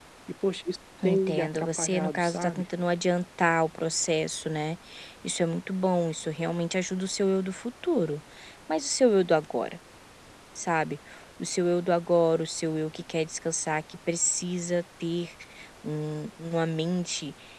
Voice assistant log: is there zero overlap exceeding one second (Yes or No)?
No